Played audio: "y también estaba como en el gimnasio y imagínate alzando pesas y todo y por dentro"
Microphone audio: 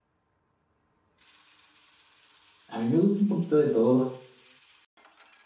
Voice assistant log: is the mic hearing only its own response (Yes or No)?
No